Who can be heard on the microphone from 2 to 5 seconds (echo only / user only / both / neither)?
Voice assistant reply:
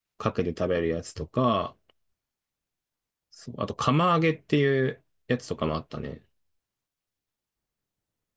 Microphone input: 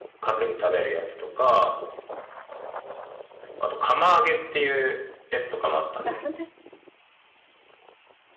echo only